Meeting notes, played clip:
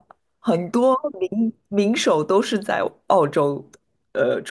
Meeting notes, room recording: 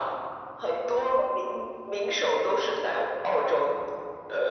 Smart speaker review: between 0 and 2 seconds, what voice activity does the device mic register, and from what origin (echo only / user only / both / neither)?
echo only